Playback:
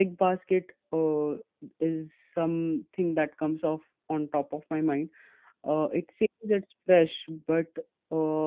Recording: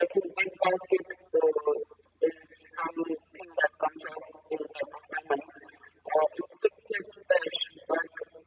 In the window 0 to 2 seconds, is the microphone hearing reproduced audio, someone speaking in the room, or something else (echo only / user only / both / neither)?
echo only